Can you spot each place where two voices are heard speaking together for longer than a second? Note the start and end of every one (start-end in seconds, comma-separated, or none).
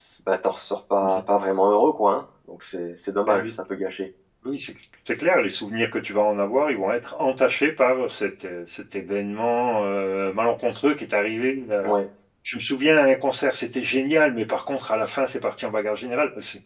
none